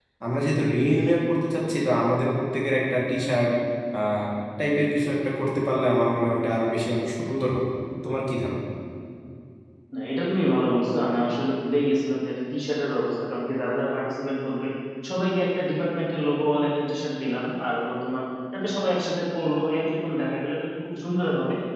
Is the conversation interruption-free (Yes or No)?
Yes